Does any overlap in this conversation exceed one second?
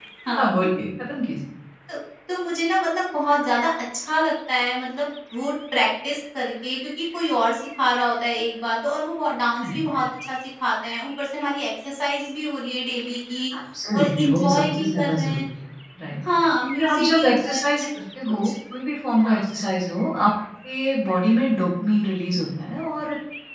Yes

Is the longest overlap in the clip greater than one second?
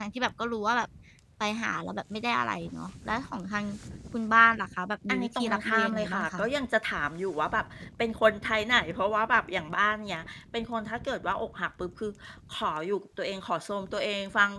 Yes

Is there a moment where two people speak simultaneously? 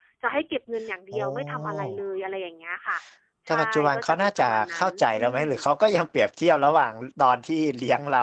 Yes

